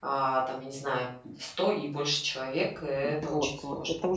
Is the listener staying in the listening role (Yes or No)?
No